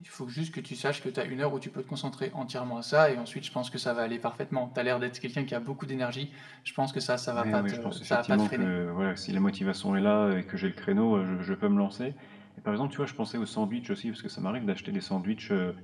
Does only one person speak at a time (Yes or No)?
No